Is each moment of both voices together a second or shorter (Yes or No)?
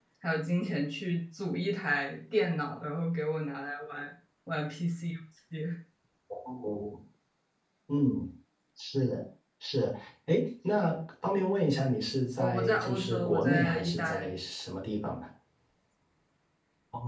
No